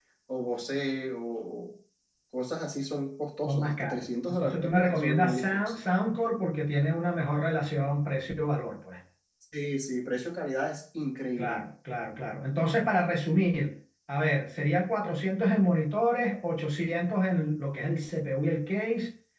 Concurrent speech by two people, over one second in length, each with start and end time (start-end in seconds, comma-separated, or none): 3.5-5.8